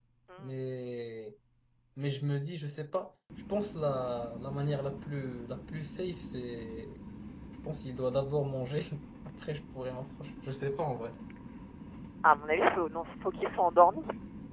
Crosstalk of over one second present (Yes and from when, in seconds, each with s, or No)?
No